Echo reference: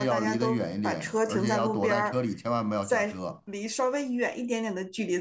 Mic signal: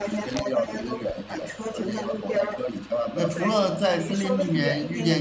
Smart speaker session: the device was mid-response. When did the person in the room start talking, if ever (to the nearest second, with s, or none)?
3 s